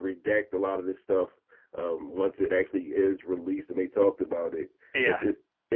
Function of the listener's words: listening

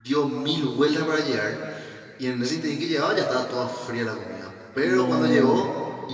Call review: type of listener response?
listening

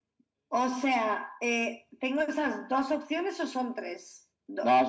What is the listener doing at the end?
taking over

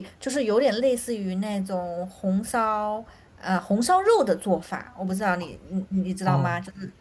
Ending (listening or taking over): taking over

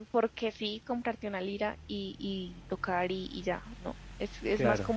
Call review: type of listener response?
listening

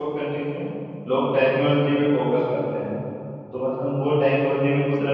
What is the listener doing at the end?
listening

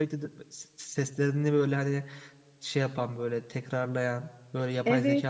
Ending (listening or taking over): taking over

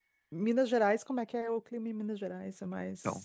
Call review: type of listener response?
taking over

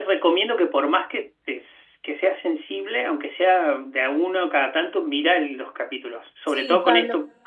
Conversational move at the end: listening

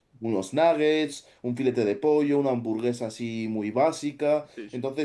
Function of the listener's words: listening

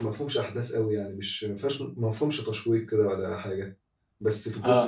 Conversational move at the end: listening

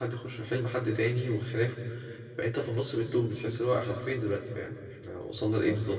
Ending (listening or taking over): taking over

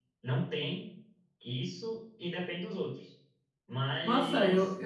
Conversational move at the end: taking over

